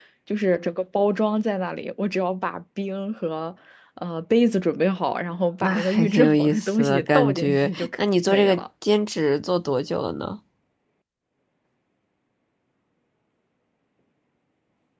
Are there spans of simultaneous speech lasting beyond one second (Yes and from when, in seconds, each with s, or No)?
Yes, from 5.6 s